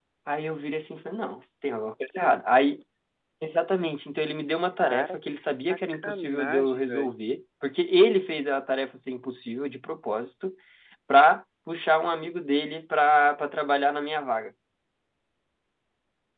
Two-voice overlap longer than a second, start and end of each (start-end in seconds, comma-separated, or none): 4.8-7.1